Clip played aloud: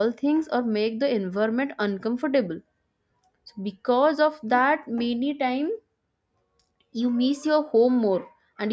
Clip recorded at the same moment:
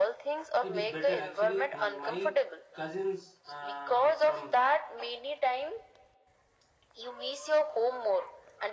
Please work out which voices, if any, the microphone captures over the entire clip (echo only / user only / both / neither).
both